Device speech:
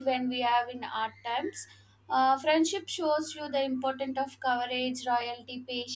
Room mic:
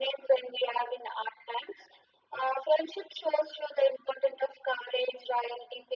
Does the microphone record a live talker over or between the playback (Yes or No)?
No